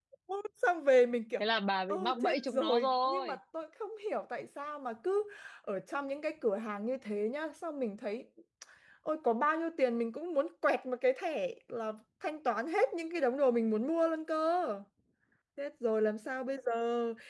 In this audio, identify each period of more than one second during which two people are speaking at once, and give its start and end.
1.9-3.4

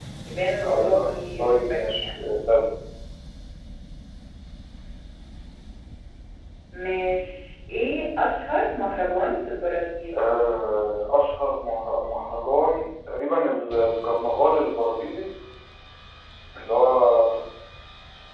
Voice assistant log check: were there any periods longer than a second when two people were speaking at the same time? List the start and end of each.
0.7-2.2

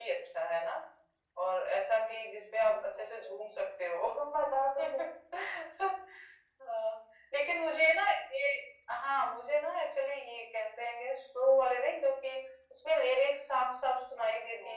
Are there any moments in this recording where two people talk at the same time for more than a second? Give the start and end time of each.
1.9-3.5

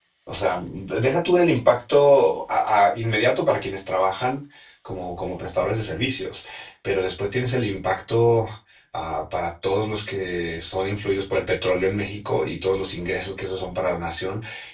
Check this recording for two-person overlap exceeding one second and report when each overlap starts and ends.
none

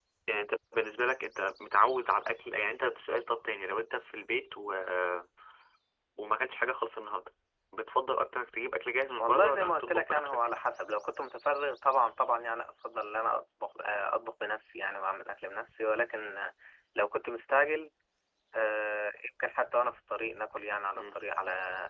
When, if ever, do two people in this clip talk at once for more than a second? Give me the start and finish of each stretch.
9.2-10.4

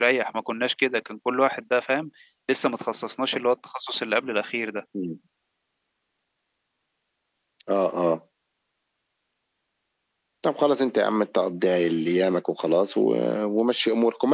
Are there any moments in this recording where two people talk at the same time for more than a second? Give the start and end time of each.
none

